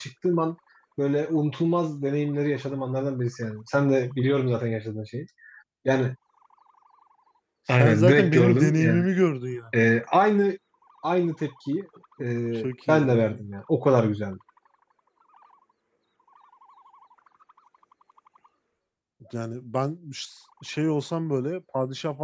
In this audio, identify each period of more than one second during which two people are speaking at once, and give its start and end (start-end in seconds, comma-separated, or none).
7.7-9.0